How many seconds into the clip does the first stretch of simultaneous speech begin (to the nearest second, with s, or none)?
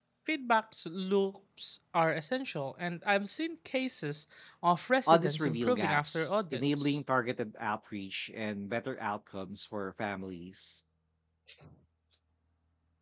5 s